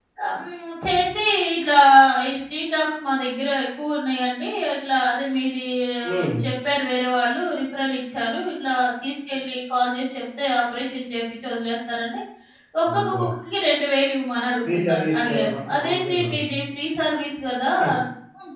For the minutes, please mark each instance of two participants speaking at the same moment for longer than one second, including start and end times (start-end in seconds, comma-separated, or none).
14.7-16.5